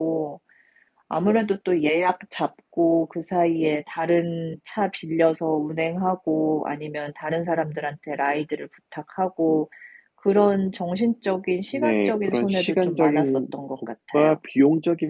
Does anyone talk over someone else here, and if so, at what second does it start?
11.7 s

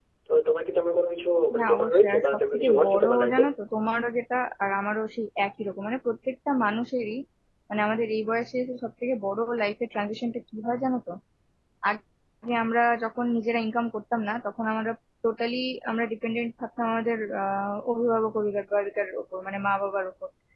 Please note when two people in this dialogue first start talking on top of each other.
1.5 s

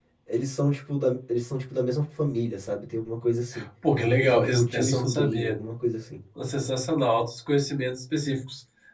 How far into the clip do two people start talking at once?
4.2 s

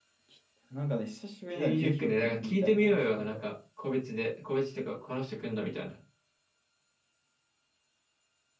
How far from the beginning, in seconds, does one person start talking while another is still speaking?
1.5 s

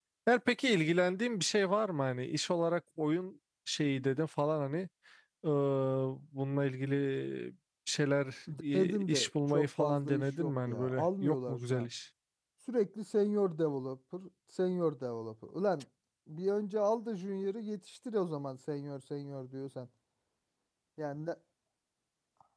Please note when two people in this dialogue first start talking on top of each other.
8.5 s

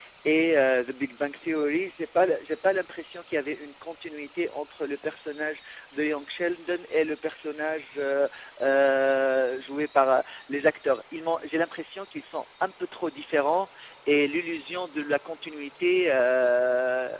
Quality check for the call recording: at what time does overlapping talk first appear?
none

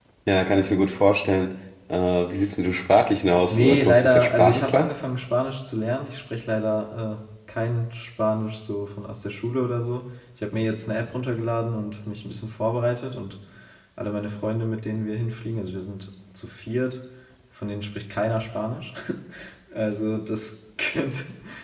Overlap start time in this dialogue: 3.5 s

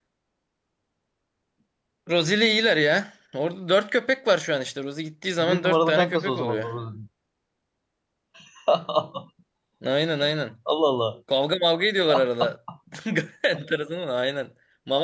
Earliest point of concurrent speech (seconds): 5.4 s

